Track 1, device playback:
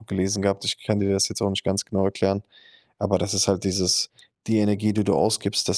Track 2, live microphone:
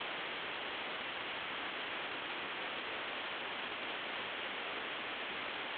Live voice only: none

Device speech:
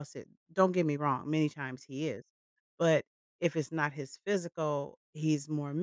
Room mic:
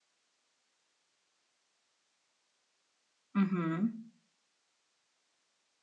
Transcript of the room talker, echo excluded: Mhm.

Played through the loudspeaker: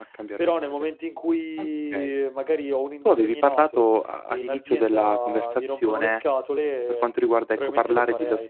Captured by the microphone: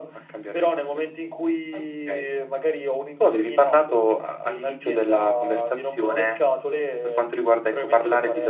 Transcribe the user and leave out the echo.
none

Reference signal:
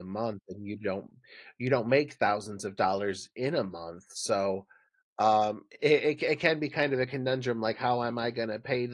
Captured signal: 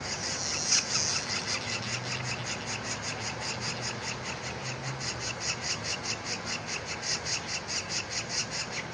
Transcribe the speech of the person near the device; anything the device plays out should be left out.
none

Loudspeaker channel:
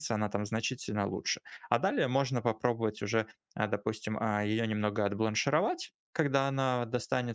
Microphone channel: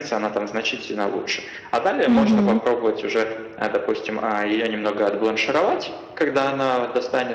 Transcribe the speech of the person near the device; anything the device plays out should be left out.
Мгм.

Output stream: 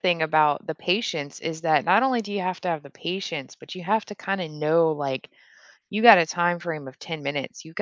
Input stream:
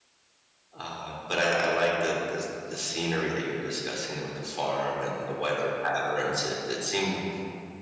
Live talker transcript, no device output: Um, but I, I like the, the the scenery that you were discussing there with the farm and the weather patterns. It it seemed

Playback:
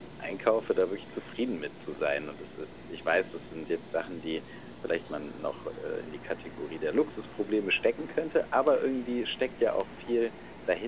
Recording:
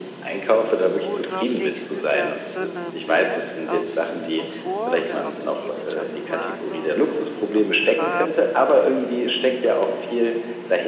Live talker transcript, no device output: Und worauf legst du da besonderen Wert? Auf Komfort oder auf das Image, auf die Marke oder auf die Farben?

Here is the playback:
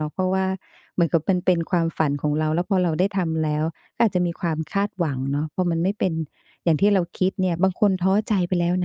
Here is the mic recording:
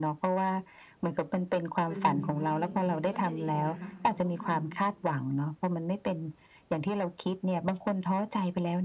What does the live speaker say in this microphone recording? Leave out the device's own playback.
มันเหนื่อยมากเลยมันไม่ใช่ว่าจะดีเลยนะคะคือเราต้องท

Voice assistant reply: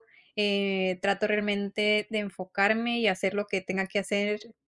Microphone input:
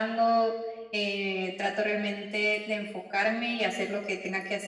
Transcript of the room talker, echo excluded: none

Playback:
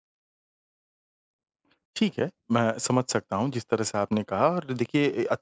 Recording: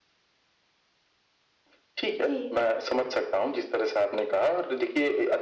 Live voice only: जी,

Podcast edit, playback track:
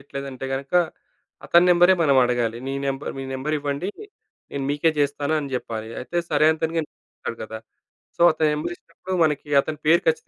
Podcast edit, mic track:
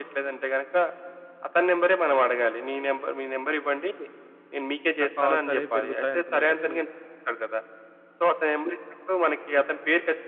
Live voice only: నా కాల్స్ అనేవి పెరుగుతాయనుకున్నా కానీ,

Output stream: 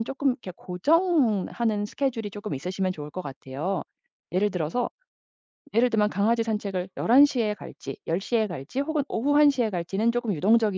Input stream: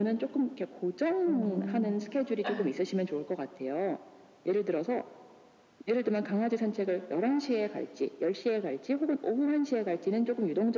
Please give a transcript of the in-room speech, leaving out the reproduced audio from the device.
음, 예.

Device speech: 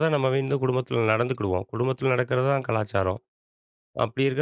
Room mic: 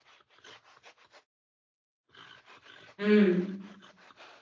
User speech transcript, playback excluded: ம்.

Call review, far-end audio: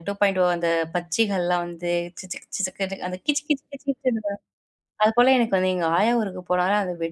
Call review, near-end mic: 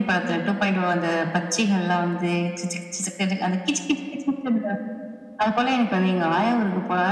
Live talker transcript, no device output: none

